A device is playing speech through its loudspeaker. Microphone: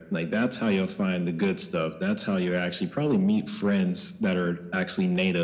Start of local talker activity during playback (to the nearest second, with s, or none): none